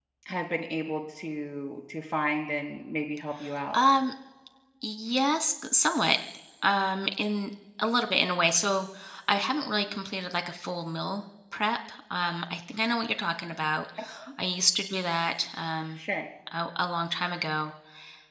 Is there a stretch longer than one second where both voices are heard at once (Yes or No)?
No